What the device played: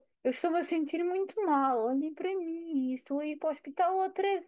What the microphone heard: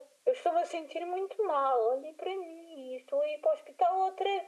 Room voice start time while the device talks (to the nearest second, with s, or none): none